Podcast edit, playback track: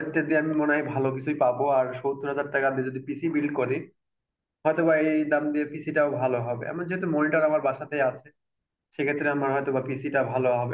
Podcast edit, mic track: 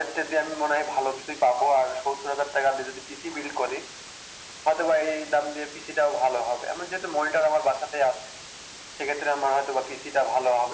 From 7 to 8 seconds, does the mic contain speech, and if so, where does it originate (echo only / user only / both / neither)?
echo only